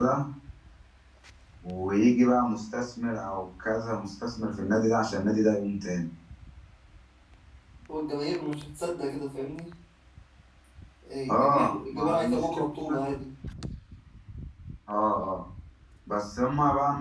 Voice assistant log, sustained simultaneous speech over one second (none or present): present